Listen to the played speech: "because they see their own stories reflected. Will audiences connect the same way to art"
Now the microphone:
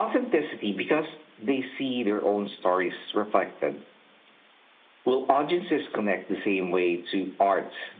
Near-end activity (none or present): none